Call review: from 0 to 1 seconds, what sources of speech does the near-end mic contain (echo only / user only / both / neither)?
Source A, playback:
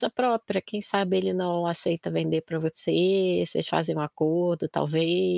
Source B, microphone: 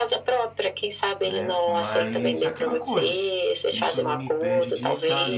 echo only